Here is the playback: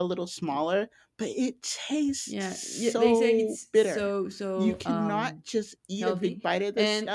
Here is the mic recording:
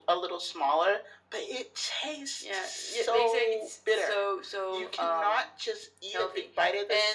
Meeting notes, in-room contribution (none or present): none